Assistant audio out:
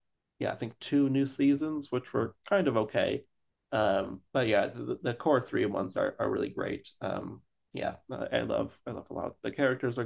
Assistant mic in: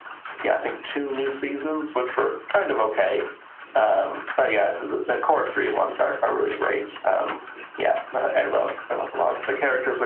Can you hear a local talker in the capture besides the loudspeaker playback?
No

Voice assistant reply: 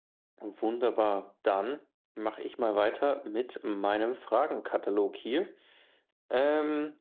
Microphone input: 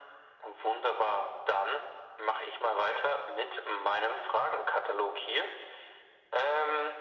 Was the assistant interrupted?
No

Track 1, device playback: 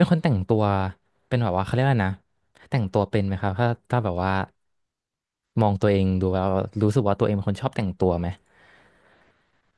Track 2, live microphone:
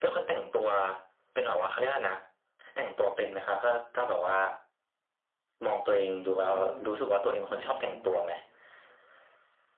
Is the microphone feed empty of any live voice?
No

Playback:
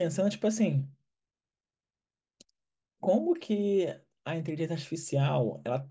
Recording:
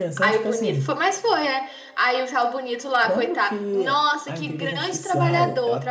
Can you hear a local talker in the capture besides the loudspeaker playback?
Yes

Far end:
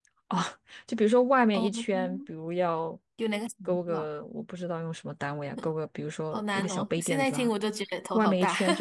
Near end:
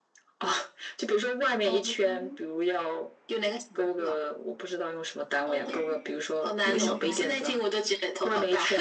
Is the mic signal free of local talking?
No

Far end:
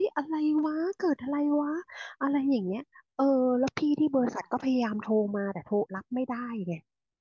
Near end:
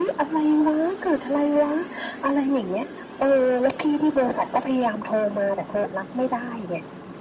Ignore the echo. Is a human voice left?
No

